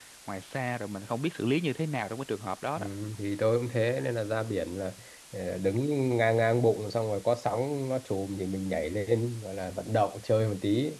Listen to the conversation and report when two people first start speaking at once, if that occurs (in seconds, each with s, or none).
none